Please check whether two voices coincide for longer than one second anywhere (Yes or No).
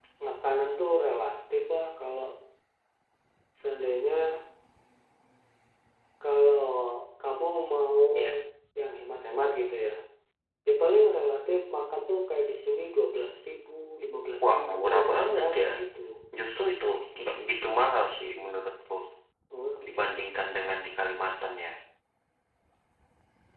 Yes